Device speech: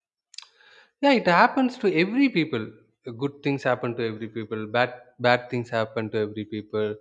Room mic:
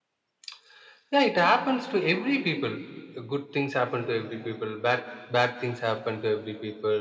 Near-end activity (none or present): none